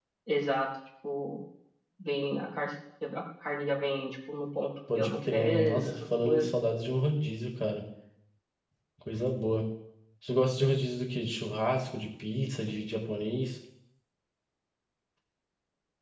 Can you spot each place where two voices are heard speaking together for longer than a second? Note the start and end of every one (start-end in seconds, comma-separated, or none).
5.0-6.5